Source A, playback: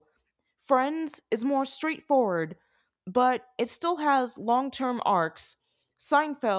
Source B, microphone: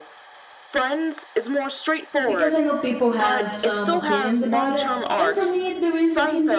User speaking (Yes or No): Yes